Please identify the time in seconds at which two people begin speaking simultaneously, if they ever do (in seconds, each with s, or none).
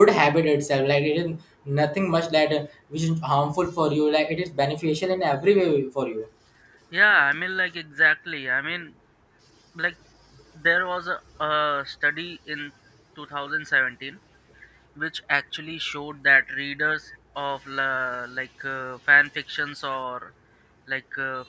none